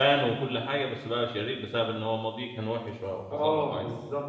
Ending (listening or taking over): taking over